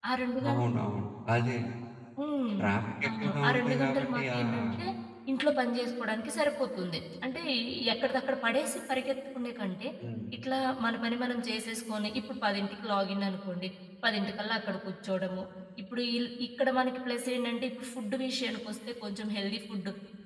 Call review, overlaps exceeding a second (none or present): present